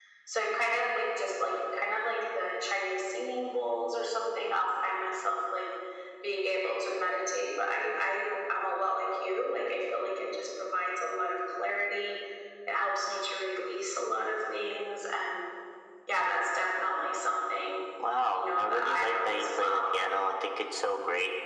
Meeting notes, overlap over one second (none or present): present